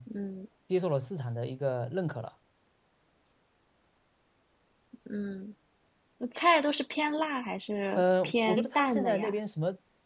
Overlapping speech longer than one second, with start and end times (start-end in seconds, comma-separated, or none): 8.0-9.4